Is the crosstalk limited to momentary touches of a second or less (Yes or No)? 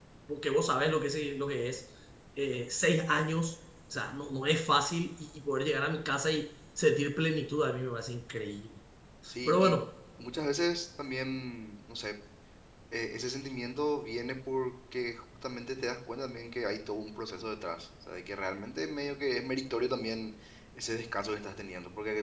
Yes